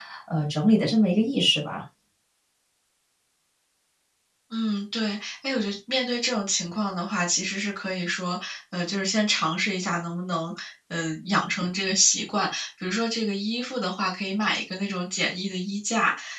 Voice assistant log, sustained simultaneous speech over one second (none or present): none